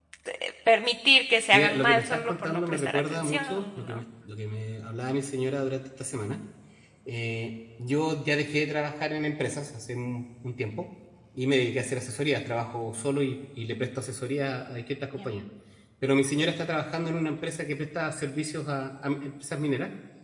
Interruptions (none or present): present